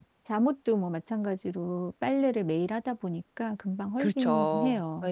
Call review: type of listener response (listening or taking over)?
taking over